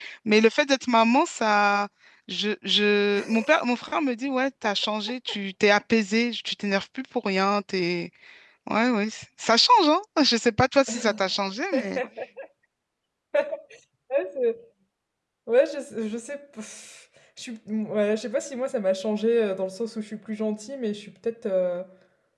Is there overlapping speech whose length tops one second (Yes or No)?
No